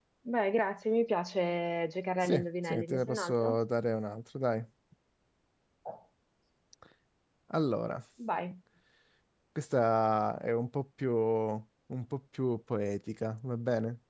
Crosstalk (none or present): present